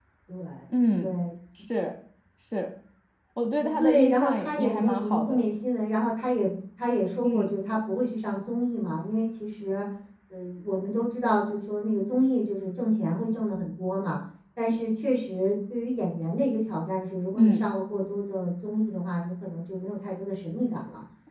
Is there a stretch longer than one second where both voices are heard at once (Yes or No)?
Yes